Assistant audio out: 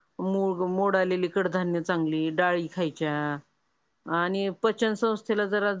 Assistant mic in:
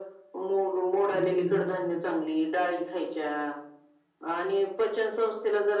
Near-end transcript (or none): हमं.